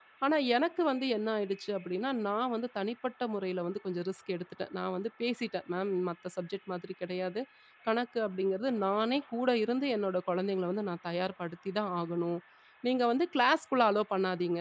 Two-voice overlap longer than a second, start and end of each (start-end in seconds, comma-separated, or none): none